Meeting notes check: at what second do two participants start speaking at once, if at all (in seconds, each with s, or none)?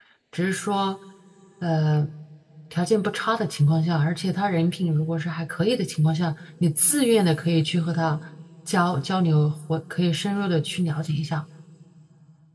none